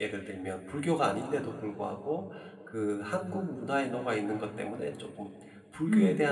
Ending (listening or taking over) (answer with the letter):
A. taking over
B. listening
B